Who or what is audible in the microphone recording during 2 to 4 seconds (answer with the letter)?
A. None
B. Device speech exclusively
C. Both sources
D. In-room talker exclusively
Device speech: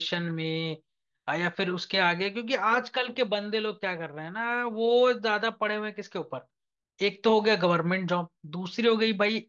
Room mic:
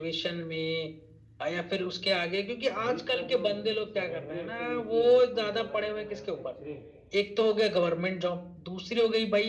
C